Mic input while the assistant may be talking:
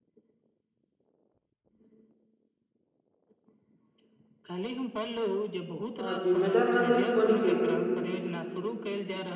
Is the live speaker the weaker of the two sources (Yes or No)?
No